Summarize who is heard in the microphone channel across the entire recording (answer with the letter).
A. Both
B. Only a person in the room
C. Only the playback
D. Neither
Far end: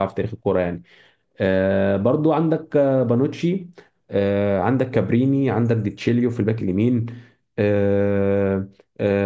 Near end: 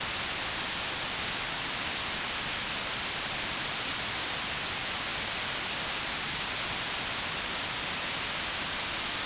D